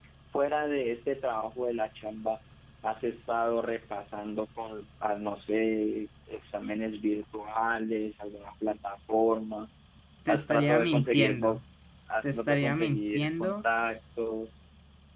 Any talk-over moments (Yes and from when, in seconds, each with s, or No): Yes, from 10.3 s